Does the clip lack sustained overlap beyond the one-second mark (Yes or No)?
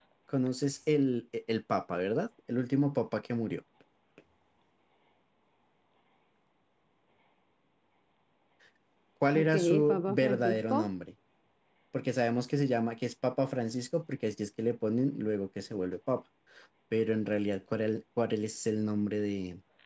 No